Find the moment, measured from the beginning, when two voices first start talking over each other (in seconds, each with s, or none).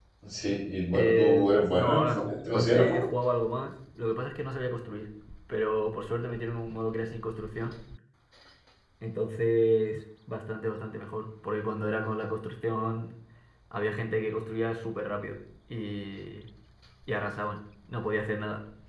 0.9 s